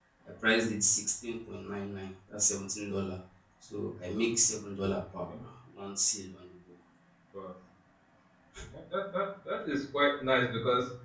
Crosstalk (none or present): none